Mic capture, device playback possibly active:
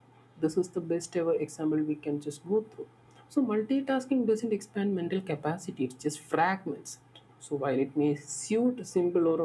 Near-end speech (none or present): none